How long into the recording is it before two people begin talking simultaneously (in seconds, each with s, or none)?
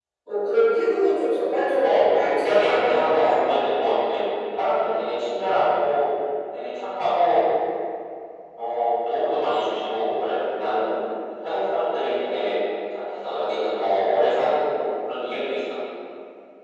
1.8 s